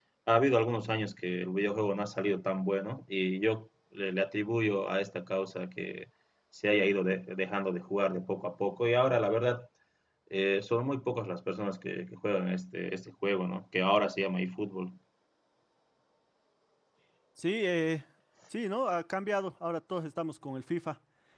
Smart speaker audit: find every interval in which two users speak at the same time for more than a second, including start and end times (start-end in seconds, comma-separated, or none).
none